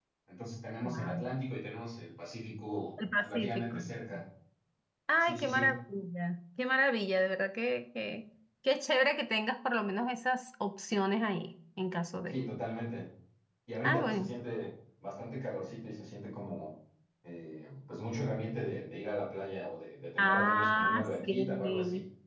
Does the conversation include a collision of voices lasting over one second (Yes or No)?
Yes